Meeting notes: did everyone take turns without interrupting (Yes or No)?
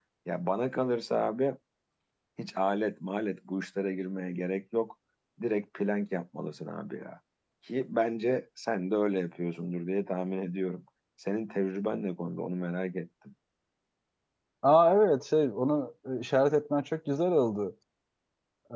Yes